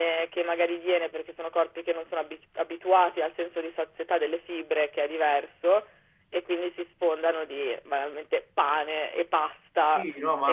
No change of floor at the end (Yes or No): No